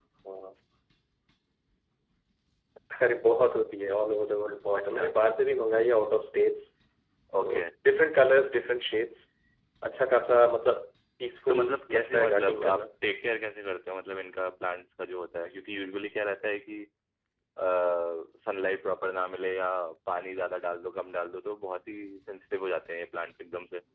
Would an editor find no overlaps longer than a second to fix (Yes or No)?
No